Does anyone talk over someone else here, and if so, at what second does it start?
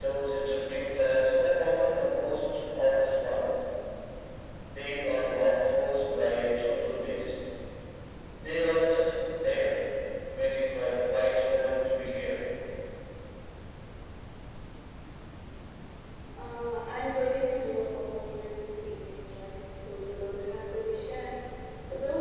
none

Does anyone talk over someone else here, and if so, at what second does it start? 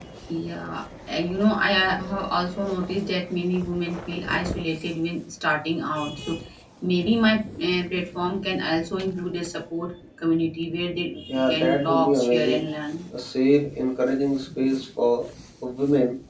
11 s

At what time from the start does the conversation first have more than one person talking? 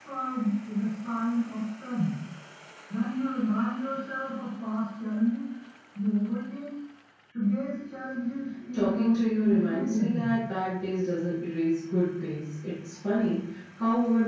9 s

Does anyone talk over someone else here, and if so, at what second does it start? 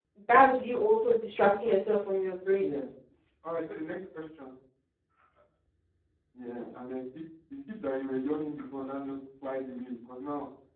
none

